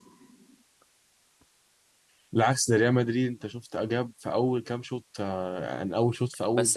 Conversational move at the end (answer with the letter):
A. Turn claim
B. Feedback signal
A